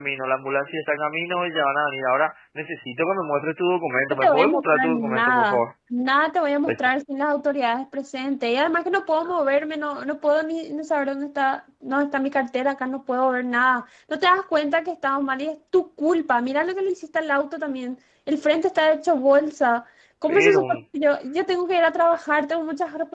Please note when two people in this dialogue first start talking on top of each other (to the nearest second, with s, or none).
4 s